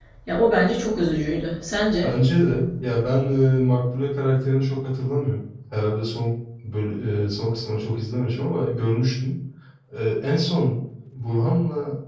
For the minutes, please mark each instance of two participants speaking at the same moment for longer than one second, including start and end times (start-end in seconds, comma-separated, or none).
none